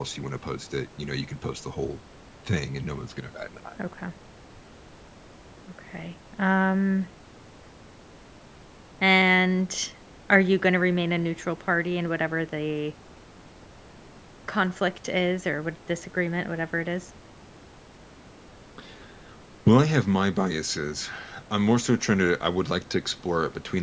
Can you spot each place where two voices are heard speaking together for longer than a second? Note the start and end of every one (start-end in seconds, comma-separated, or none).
none